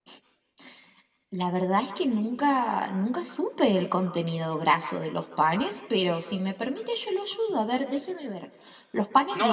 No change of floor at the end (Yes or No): No